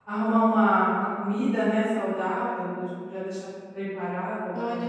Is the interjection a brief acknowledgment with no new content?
No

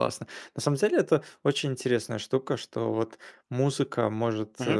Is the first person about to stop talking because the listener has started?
No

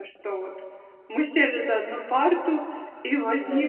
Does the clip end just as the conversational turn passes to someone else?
No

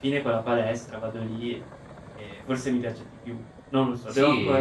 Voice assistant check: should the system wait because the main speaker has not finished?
No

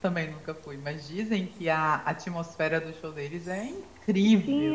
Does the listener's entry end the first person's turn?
Yes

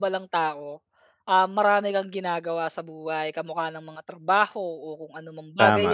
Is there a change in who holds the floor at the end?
No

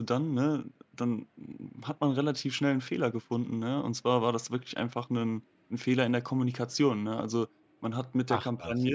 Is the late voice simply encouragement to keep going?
Yes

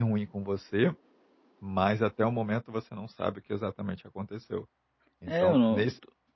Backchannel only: No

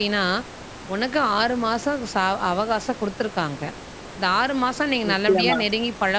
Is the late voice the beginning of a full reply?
No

